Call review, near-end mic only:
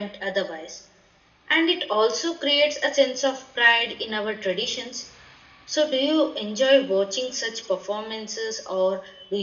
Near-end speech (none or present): none